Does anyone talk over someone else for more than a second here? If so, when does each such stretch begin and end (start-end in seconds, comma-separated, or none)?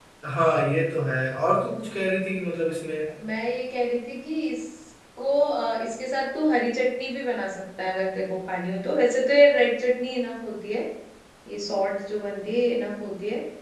none